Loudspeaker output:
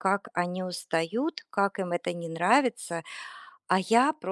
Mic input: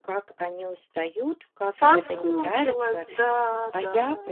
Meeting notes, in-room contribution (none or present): present